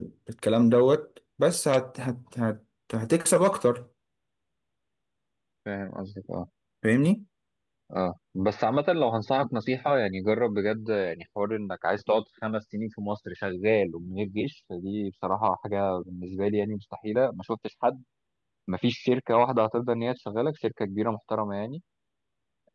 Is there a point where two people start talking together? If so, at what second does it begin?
none

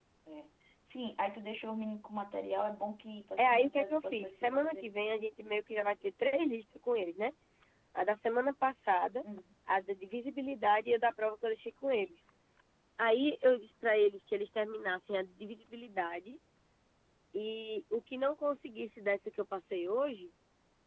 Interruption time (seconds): 3.4 s

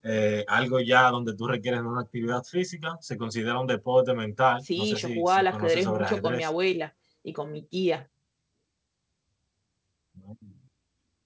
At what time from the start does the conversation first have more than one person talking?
4.7 s

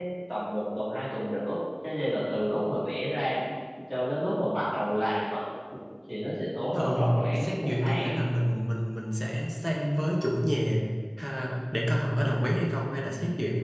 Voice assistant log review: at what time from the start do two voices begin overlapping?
6.8 s

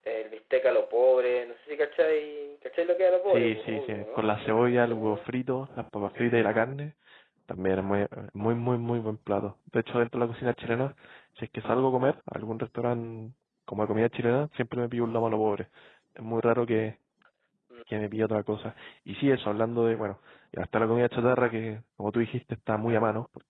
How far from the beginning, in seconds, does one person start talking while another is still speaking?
3.3 s

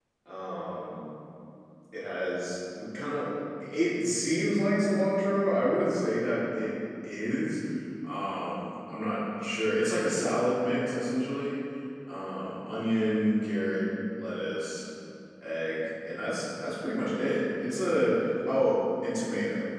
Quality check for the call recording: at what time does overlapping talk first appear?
none

